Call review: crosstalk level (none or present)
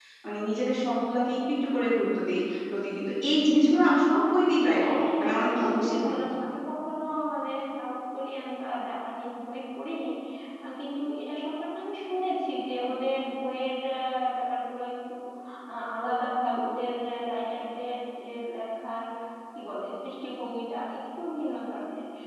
present